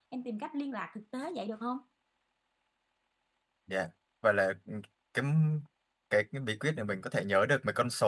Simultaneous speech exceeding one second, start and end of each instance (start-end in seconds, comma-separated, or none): none